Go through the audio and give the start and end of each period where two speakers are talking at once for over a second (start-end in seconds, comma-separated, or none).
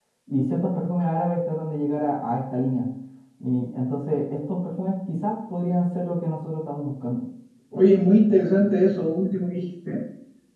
none